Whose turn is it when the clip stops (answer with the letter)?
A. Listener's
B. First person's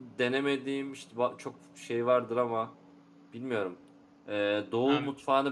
B